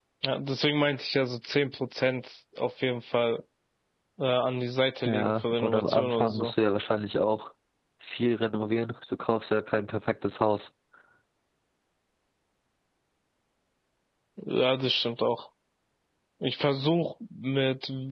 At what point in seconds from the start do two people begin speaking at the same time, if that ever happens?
5 s

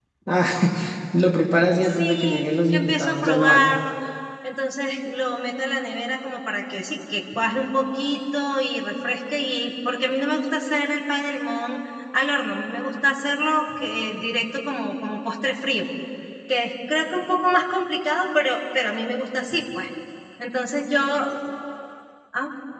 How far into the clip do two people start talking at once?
2 s

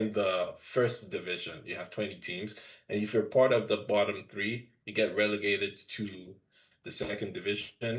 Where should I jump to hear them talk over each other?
none

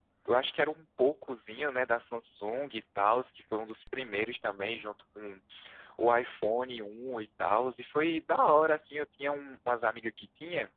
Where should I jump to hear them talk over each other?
none

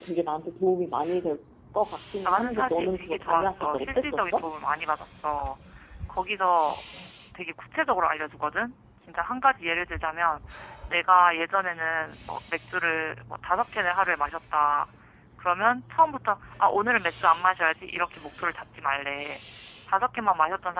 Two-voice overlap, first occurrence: 2 s

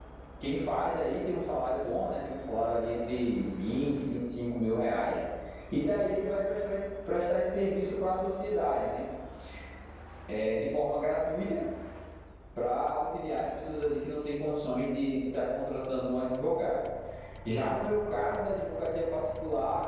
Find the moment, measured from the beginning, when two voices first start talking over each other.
none

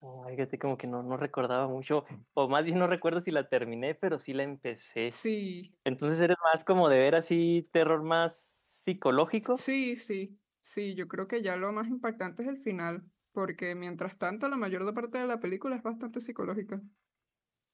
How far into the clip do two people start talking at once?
none

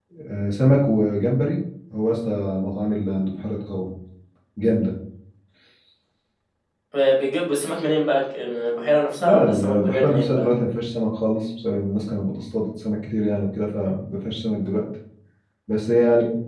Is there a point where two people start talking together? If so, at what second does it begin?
9 s

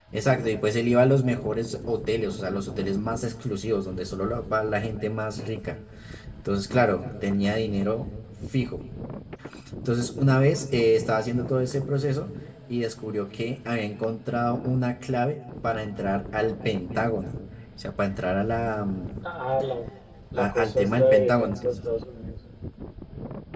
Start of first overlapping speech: 20 s

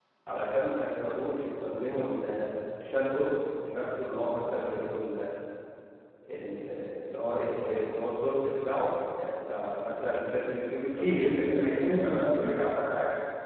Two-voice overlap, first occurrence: 11 s

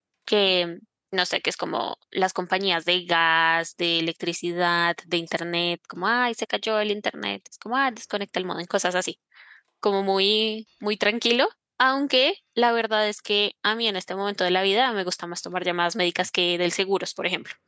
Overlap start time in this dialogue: none

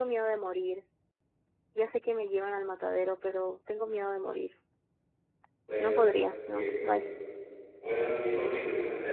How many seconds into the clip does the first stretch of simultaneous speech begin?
6 s

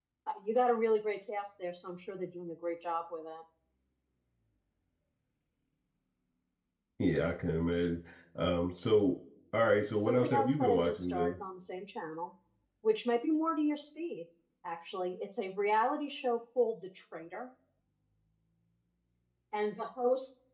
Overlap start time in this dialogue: 10 s

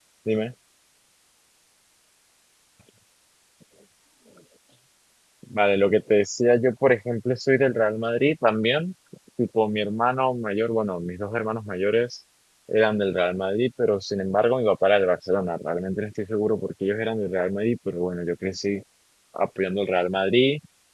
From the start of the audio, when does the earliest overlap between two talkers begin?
none

